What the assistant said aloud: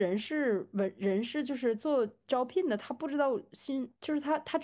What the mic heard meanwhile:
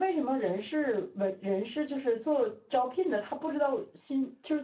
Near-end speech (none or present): none